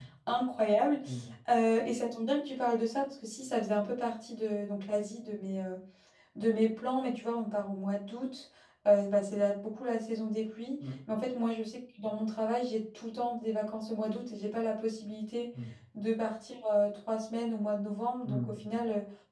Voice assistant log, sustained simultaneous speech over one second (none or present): none